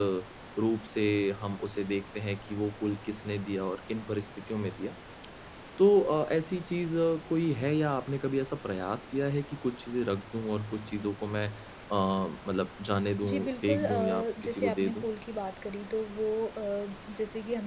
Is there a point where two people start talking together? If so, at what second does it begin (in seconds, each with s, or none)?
13.2 s